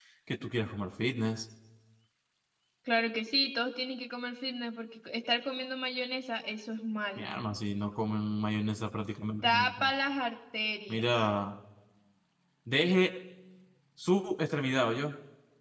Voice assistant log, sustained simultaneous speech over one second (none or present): none